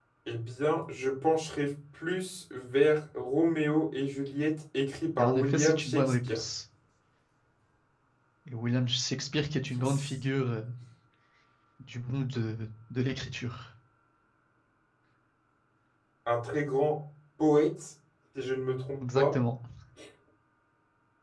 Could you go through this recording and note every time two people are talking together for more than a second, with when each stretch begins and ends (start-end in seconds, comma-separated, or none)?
5.2-6.4